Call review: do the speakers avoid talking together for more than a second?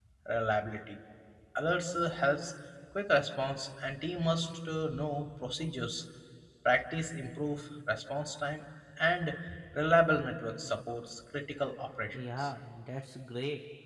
Yes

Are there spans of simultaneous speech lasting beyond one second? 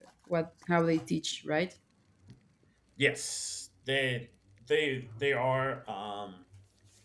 No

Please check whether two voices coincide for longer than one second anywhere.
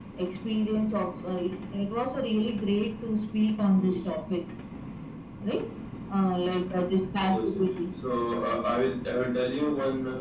No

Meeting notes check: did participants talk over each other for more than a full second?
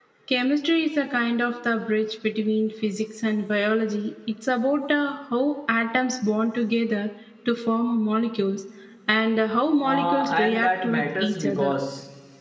Yes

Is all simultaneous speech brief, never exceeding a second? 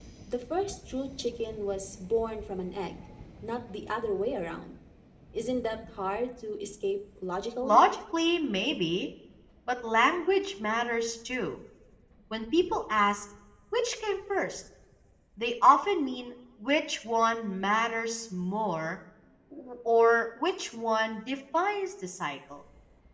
Yes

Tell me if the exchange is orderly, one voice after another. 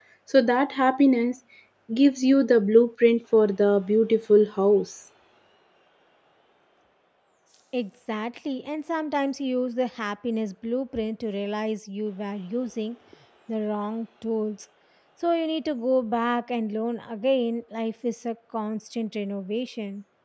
Yes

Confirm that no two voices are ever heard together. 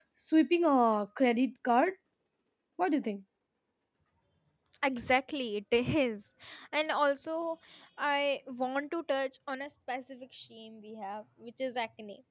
Yes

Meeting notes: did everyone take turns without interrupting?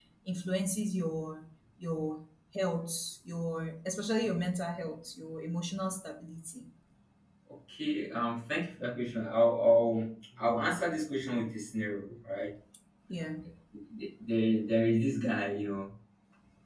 Yes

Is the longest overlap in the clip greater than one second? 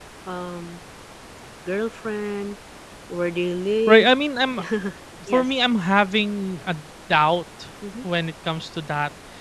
No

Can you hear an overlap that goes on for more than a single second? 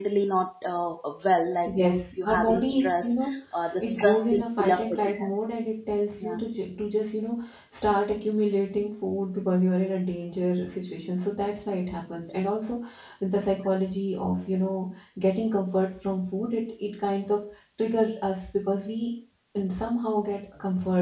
Yes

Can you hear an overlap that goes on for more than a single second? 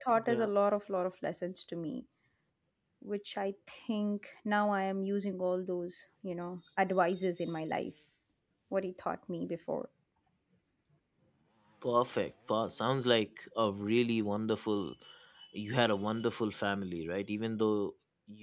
No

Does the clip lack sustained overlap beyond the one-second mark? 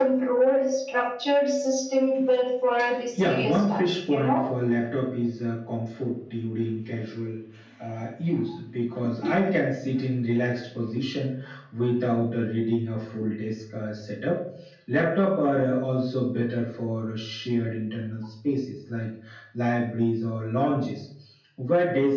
No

